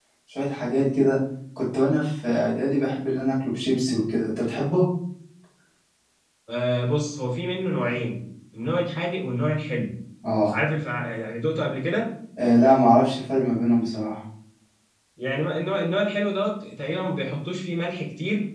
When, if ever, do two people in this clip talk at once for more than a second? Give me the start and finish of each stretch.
none

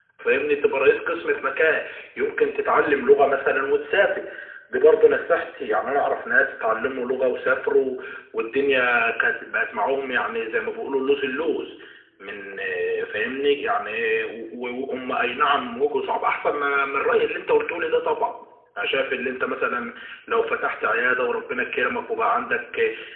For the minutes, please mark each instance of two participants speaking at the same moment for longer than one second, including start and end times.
none

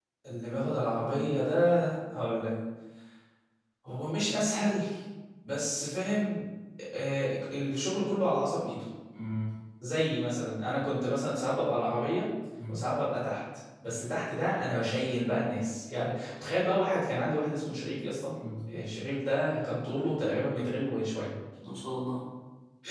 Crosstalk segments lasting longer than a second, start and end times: none

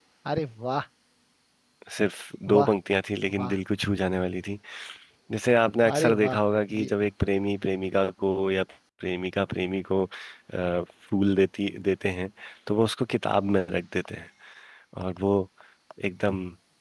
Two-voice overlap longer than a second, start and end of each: none

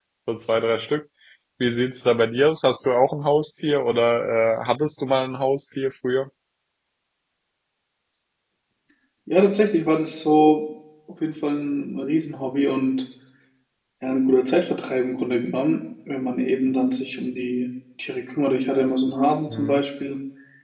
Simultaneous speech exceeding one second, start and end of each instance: none

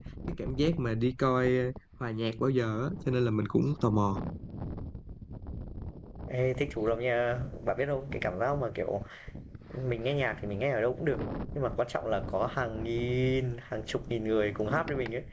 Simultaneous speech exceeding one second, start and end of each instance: none

